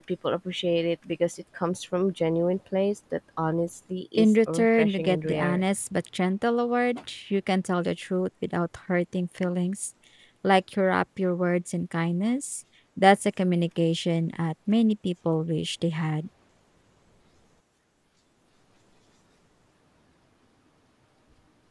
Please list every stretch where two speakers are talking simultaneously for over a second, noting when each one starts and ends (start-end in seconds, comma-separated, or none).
4.2-5.6